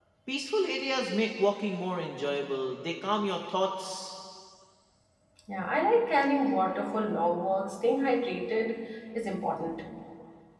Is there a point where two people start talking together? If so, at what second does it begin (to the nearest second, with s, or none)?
none